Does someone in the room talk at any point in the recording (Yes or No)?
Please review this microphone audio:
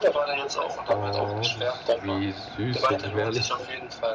Yes